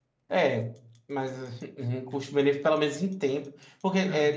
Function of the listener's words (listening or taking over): listening